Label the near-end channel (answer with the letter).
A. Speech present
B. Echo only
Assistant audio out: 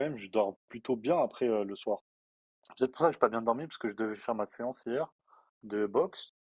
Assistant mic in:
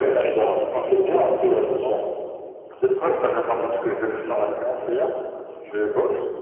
A